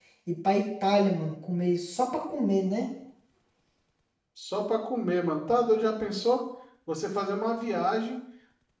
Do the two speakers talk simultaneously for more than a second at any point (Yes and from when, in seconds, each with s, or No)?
No